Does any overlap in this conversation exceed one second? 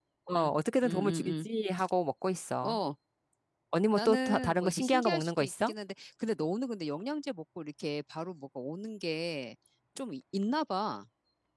Yes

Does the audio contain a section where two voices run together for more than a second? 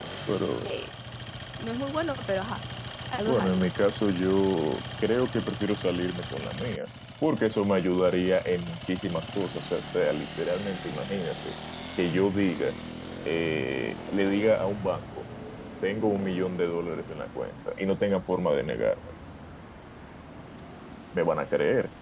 No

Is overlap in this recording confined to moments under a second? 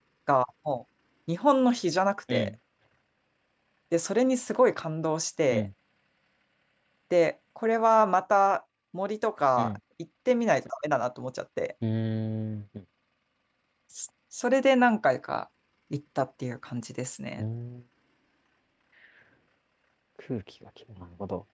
Yes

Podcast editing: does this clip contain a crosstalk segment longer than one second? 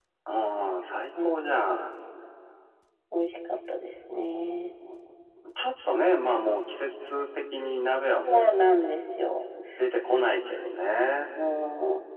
No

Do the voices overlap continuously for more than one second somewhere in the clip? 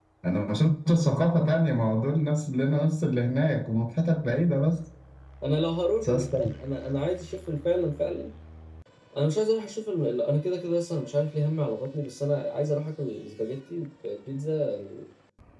No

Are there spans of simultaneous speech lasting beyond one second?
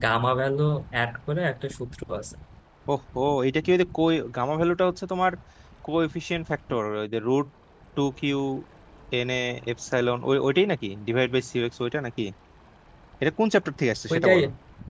No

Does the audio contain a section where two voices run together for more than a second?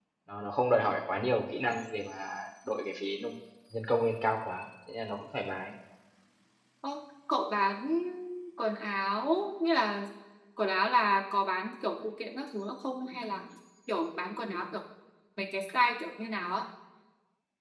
No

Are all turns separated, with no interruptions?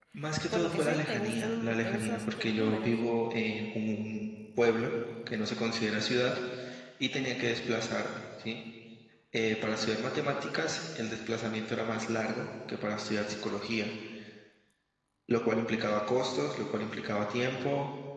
No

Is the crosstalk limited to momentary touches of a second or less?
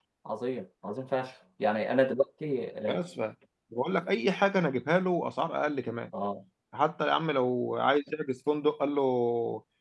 Yes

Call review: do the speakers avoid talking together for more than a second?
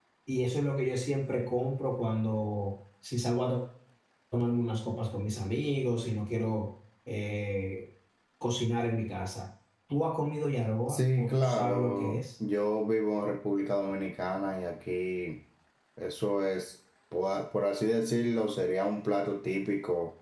No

